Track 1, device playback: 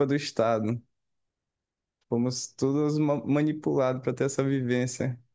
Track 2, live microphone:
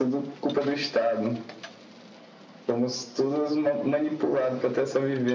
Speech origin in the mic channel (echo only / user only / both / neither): echo only